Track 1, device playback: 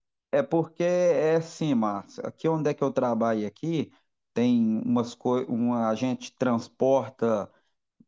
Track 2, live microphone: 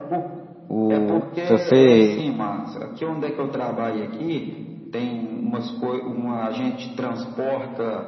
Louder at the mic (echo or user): user